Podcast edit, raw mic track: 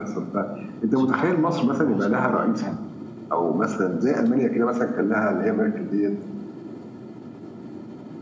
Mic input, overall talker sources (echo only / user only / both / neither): both